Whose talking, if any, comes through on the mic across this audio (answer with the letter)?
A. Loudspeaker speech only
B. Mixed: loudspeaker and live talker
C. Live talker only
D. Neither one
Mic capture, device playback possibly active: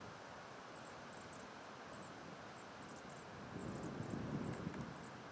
D